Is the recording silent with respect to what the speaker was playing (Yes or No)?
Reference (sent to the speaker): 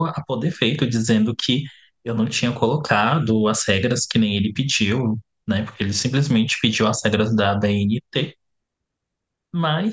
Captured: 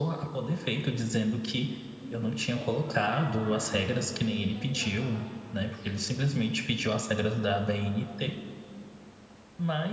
No